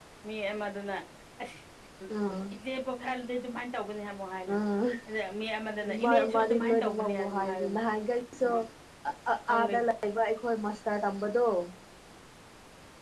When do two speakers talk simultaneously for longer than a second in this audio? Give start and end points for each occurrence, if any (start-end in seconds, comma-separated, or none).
6.0-7.8